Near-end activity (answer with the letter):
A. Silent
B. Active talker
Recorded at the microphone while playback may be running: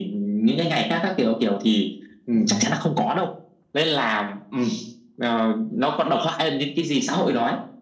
B